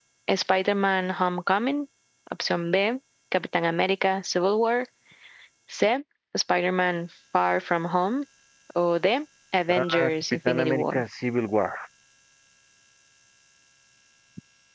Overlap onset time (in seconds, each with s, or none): 9.7 s